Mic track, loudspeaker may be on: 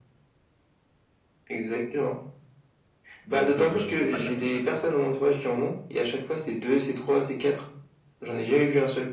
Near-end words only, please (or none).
donc heu, tu peux pas les mettre tout seul.